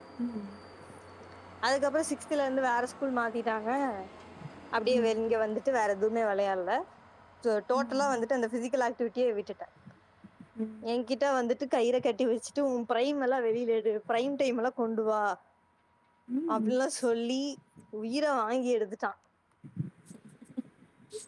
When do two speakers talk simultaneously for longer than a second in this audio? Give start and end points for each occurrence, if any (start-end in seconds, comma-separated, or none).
none